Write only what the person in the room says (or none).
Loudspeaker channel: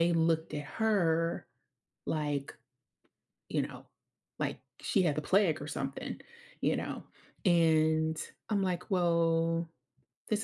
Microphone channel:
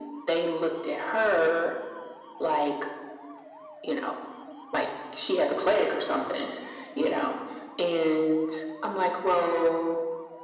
none